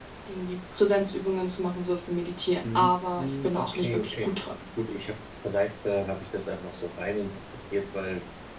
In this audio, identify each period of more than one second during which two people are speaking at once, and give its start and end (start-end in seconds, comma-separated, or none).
2.6-4.3